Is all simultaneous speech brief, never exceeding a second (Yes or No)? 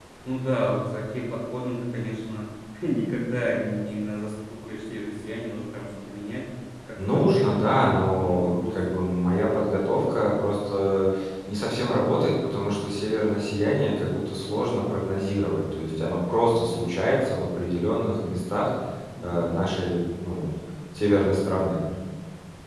No